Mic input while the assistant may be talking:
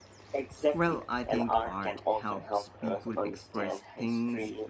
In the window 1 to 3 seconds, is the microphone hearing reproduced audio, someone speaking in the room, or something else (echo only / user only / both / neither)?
both